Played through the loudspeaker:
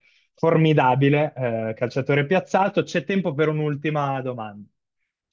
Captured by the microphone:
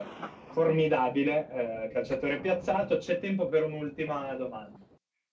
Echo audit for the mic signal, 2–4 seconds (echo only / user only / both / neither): echo only